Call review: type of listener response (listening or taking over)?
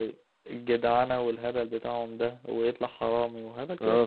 taking over